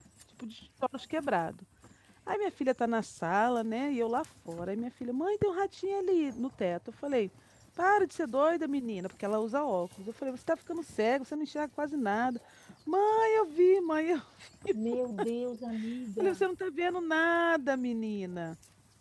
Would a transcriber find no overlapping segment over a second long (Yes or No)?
Yes